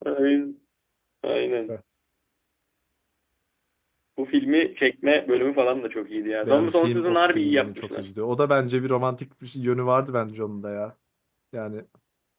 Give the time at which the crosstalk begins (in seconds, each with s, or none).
6.4 s